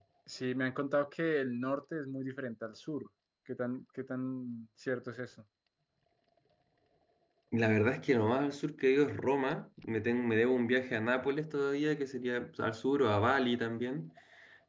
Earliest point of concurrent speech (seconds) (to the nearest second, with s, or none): none